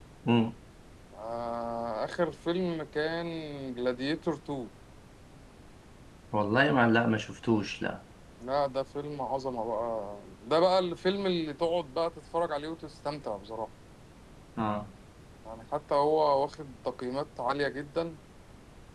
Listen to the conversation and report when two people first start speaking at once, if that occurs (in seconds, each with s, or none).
none